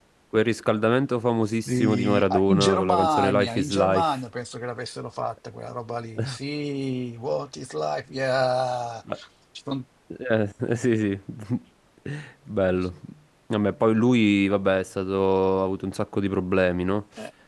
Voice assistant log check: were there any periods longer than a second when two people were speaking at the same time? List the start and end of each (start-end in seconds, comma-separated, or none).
1.7-4.0